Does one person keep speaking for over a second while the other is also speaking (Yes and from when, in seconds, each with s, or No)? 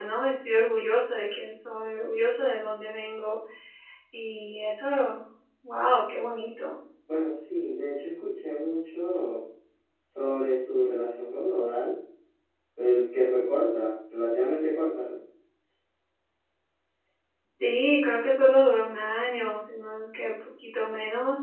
No